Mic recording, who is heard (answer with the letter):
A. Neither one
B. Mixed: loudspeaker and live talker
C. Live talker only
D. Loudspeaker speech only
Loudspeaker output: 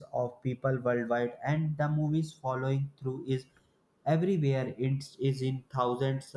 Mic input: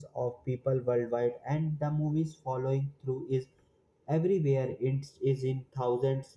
D